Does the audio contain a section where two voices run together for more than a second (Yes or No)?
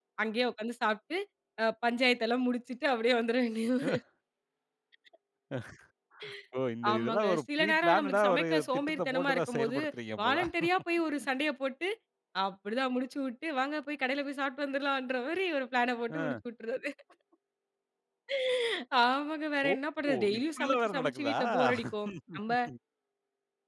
Yes